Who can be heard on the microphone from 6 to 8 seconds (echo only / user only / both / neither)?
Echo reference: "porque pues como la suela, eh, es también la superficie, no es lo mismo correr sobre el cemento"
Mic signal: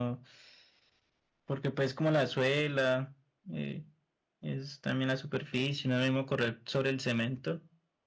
echo only